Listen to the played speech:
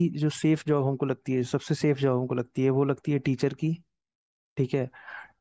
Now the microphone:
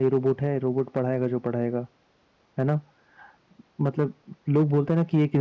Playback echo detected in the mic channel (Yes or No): No